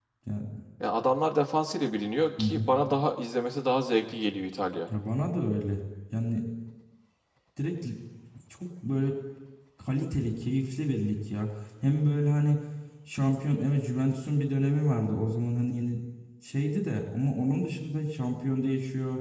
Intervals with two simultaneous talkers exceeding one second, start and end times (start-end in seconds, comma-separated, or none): none